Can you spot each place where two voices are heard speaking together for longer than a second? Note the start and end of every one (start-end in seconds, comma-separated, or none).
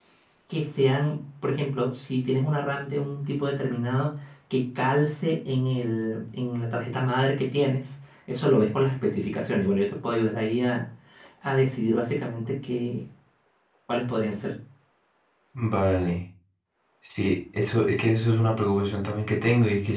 none